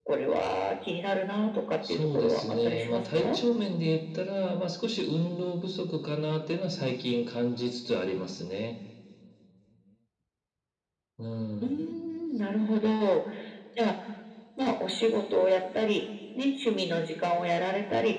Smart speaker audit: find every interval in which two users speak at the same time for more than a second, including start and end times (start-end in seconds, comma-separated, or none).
1.9-3.4